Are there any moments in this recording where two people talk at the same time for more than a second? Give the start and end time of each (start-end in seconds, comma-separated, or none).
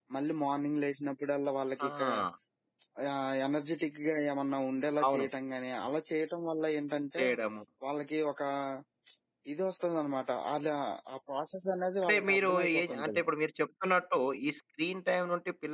12.0-13.2